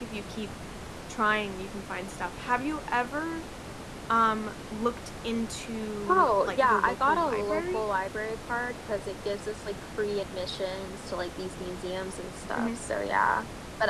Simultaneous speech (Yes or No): Yes